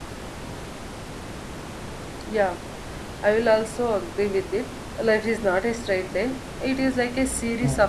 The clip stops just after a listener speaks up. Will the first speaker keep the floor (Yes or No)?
Yes